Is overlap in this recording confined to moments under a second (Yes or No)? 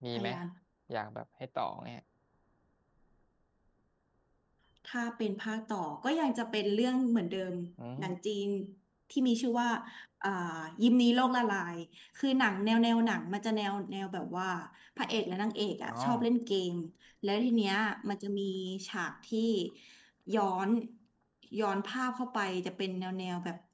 Yes